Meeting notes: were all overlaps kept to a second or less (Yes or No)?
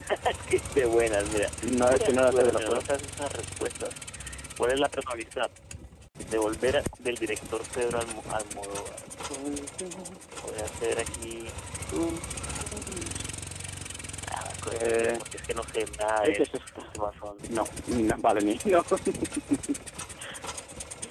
No